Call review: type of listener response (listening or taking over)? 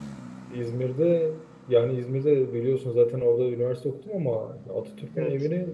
listening